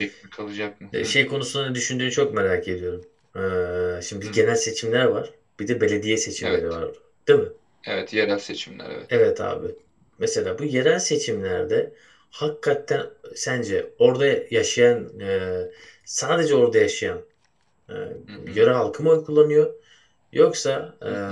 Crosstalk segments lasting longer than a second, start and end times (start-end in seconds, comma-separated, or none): none